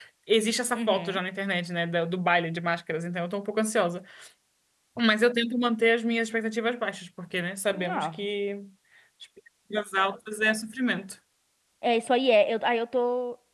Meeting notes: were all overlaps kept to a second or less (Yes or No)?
Yes